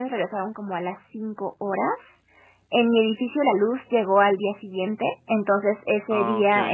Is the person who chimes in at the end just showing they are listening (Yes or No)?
Yes